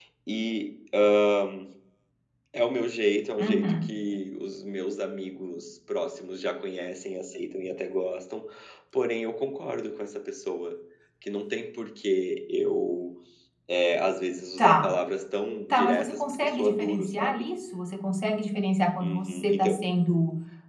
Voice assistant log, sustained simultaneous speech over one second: present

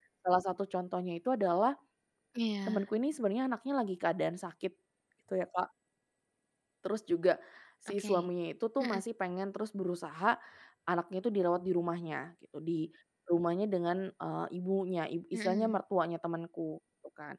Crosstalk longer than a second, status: none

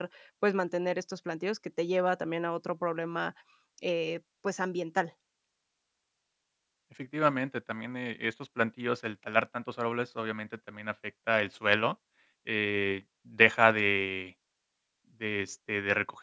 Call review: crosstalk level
none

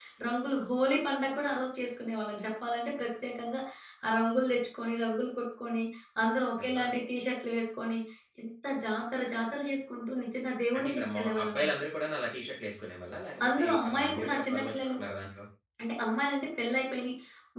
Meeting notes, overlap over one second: present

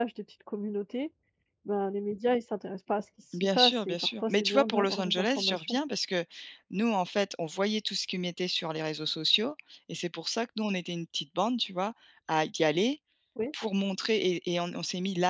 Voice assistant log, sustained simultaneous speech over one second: present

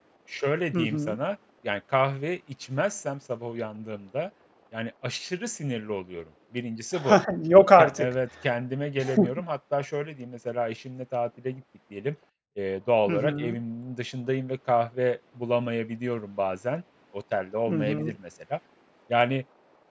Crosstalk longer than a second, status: none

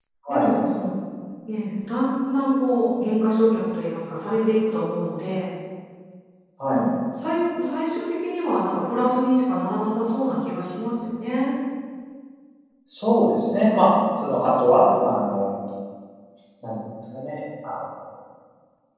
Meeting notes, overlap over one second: none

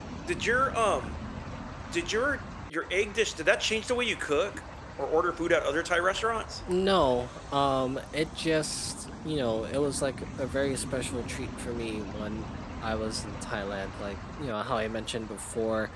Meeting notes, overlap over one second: none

